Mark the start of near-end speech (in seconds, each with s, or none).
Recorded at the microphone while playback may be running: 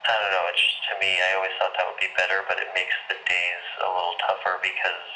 none